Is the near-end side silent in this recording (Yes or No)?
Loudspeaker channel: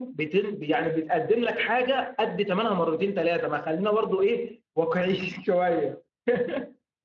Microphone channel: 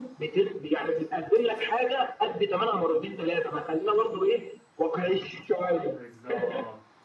No